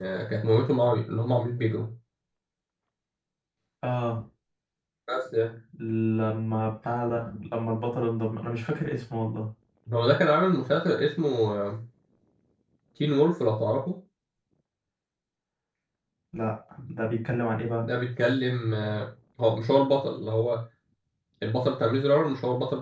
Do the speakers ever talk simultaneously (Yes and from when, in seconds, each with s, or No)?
No